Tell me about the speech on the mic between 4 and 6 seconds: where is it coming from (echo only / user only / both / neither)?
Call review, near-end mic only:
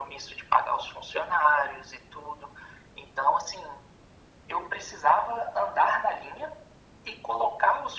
echo only